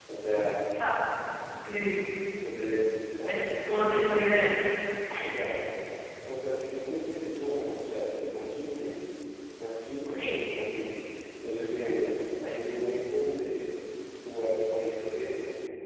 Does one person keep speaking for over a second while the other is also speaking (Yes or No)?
Yes